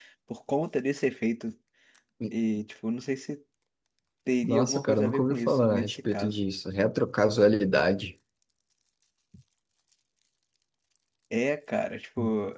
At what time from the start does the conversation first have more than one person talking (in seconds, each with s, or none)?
4.4 s